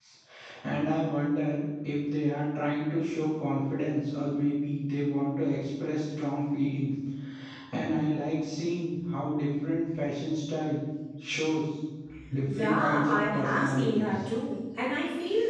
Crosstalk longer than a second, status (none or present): present